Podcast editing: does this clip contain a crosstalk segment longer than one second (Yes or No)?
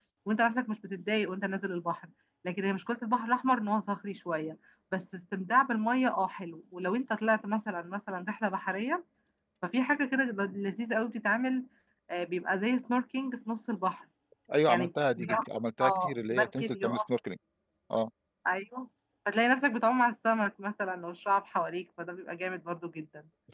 Yes